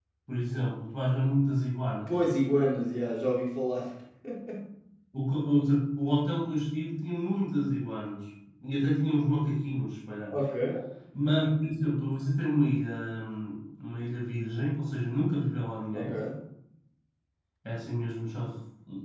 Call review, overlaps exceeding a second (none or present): none